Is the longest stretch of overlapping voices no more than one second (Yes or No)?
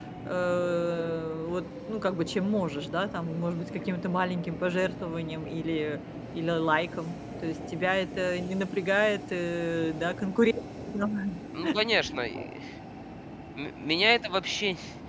Yes